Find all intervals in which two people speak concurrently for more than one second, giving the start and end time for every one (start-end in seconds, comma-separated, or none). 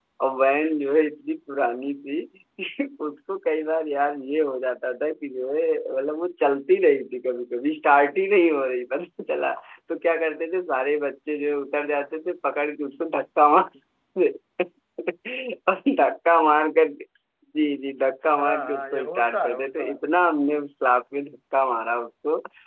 18.3-20.0